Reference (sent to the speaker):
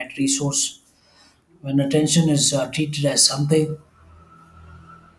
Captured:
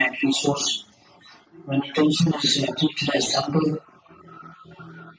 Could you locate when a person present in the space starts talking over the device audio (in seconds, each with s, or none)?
none